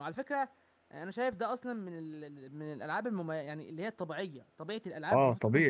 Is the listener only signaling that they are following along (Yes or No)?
No